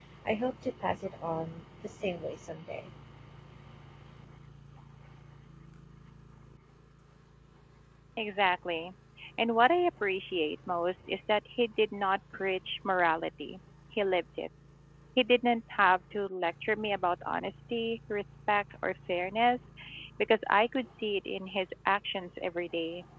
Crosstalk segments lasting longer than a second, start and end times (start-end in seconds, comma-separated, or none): none